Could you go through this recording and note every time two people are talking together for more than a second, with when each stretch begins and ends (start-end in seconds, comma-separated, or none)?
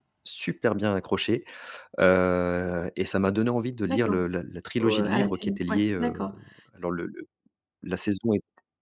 4.8-6.3